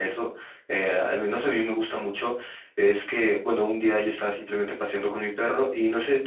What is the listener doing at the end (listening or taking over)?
listening